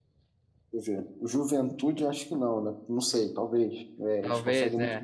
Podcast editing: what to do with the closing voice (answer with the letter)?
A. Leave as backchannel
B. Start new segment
A